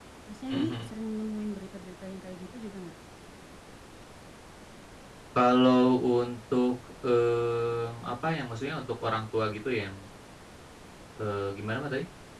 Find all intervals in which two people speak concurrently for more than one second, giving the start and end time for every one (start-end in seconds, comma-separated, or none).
none